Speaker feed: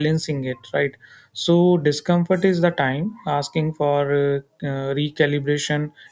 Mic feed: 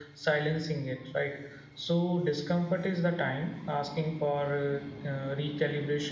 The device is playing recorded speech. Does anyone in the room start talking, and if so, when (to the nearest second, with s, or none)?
none